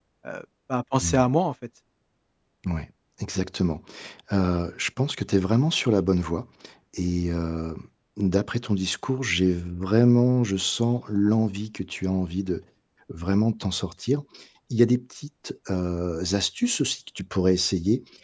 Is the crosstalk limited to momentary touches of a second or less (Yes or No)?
Yes